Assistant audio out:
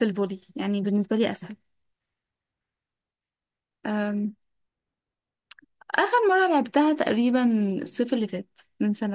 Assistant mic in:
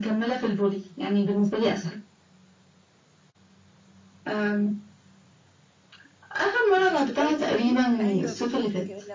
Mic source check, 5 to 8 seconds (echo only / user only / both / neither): both